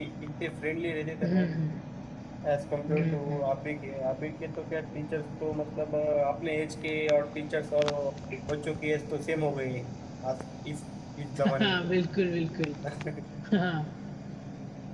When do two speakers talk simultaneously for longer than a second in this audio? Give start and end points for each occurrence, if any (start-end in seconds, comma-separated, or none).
none